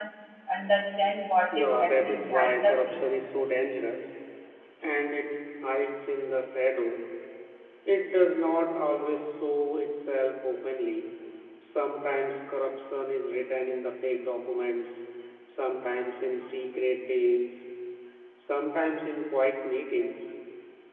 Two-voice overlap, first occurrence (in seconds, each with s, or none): 1.5 s